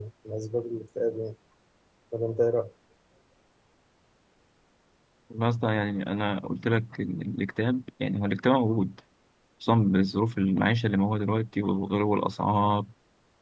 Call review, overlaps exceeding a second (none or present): none